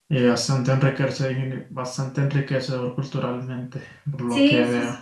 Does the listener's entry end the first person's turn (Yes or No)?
Yes